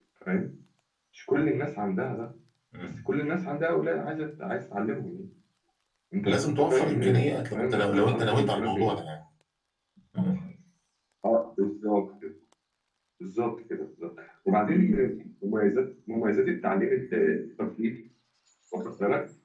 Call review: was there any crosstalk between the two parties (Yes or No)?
Yes